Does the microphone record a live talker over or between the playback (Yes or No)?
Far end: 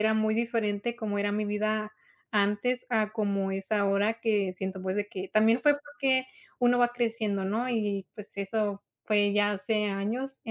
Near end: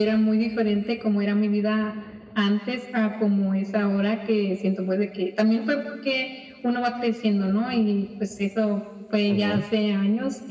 Yes